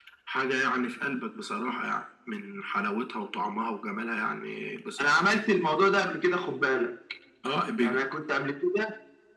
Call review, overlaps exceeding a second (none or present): none